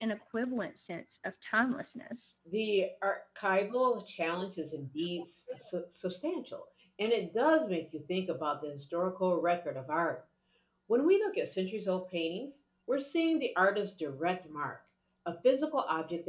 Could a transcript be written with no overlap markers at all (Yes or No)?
Yes